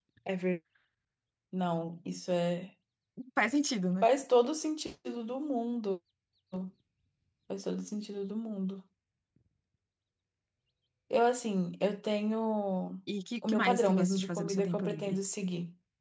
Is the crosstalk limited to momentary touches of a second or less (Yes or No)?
No